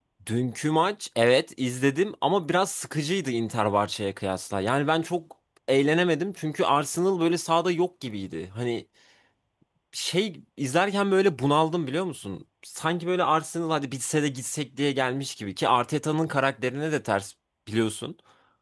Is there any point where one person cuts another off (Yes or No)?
No